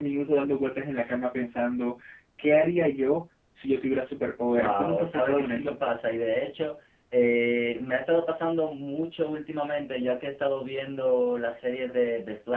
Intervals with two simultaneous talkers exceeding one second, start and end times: 4.5-5.8

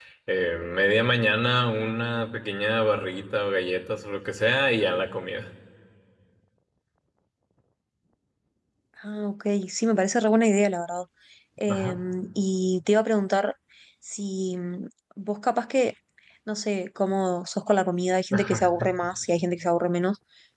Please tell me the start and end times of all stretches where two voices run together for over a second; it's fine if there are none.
none

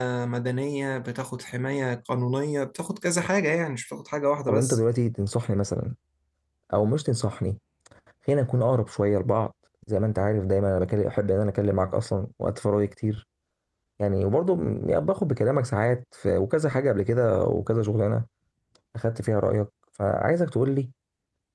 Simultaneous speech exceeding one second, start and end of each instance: none

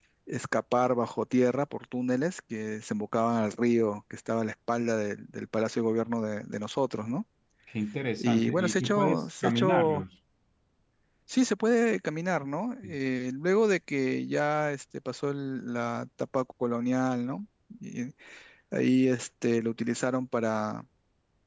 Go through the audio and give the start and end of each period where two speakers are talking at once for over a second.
8.2-10.0

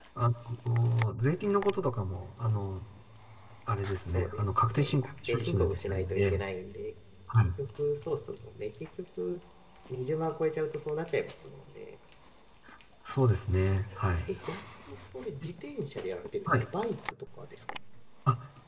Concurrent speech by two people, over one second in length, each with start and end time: 4.0-6.3

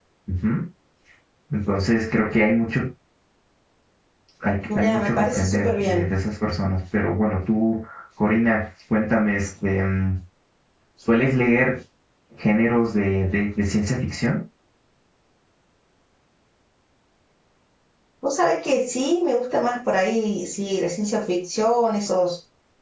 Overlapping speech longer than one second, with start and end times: 4.8-6.0

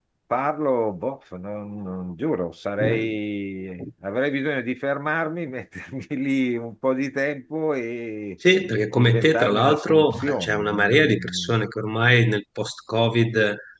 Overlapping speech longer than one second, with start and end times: 8.9-11.6

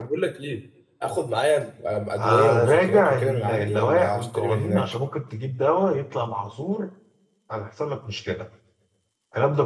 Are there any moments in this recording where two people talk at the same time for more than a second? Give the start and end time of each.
2.2-4.8

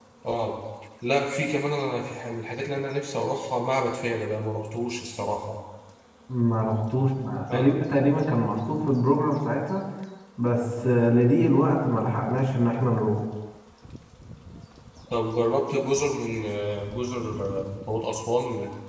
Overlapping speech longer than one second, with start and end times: none

